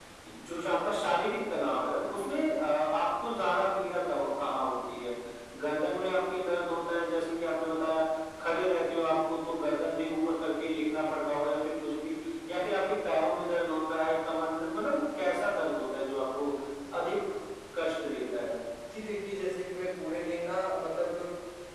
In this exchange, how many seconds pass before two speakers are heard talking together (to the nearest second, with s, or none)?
none